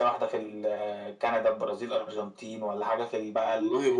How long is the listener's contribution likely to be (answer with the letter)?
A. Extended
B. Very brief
B